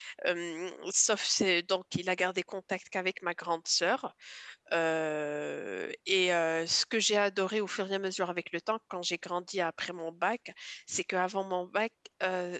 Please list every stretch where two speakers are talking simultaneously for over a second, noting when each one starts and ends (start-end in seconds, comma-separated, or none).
none